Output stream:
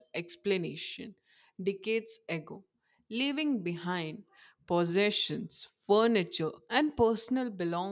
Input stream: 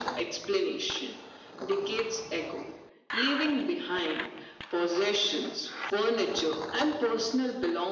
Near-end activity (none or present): none